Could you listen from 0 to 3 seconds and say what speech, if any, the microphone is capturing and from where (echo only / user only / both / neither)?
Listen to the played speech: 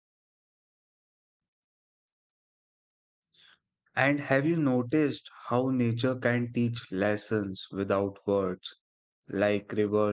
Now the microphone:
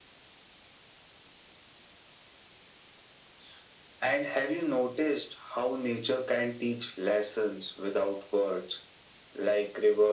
neither